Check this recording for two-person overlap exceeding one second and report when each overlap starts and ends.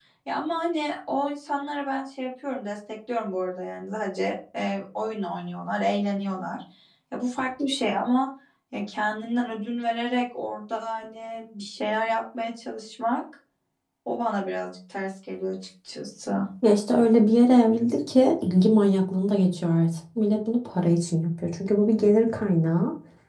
none

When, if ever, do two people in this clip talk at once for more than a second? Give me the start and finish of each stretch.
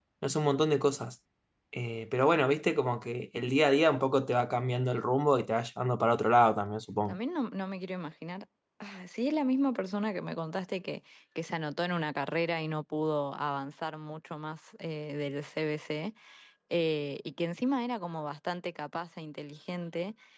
none

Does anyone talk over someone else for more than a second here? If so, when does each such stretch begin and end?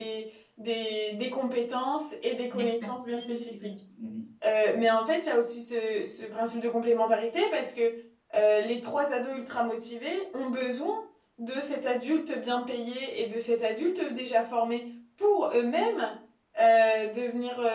2.5-3.7

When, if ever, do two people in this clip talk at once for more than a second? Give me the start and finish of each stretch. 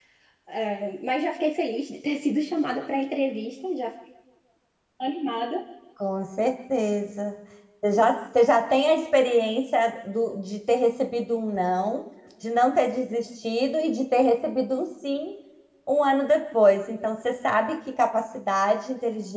none

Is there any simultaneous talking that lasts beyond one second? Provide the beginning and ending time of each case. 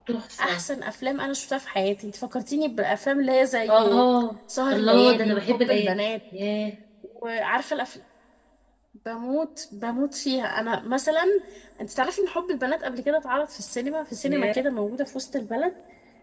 4.7-5.9

